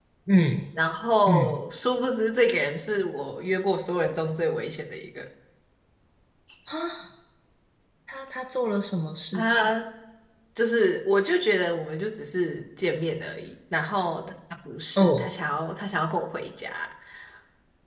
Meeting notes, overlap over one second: none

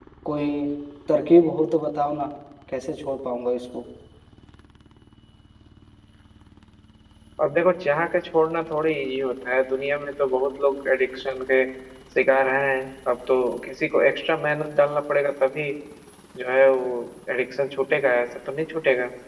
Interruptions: none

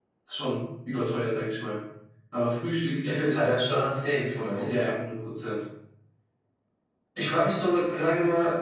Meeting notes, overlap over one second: none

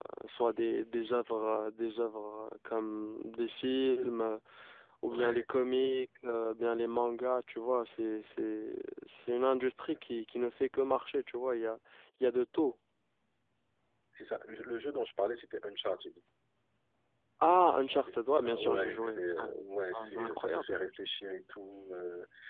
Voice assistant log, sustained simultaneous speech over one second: present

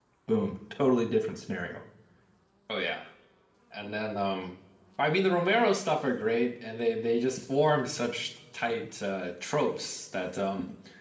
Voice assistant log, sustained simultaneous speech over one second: none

